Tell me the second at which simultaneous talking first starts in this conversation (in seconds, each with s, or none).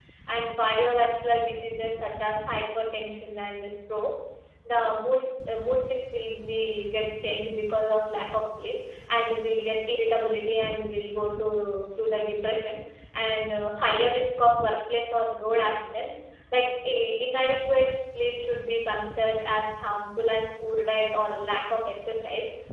none